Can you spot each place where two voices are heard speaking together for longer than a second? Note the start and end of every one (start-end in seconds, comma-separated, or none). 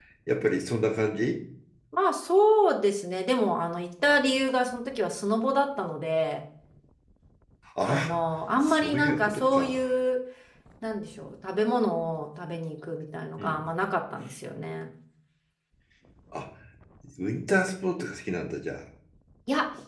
8.6-9.8